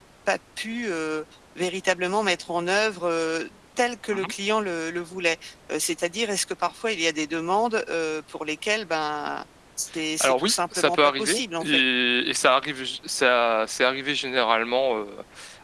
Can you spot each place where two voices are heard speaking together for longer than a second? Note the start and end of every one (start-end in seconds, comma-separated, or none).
10.2-11.8